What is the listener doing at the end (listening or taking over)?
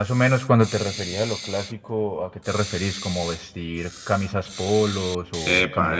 taking over